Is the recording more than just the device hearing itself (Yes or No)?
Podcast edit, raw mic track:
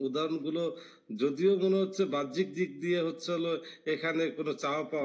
No